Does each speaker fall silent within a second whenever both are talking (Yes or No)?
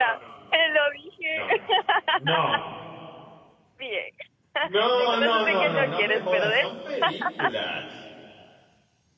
No